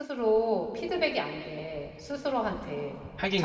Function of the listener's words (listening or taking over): listening